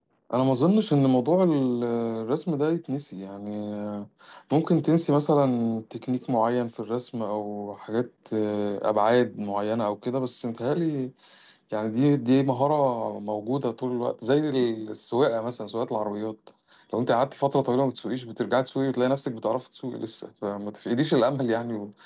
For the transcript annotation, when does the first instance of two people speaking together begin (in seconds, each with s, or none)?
none